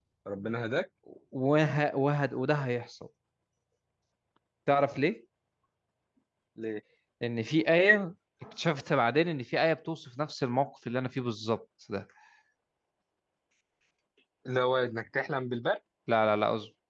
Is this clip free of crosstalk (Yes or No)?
Yes